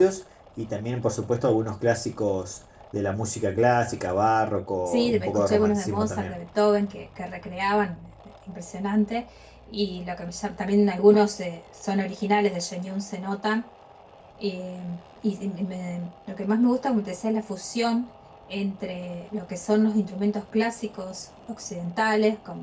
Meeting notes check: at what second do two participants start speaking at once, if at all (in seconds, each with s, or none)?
4.9 s